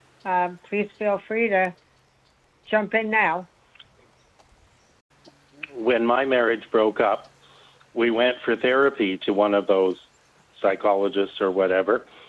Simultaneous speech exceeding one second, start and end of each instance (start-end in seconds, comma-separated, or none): none